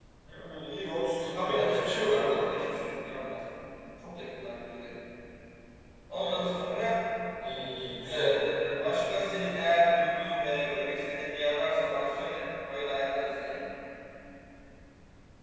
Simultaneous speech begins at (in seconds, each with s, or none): 1.3 s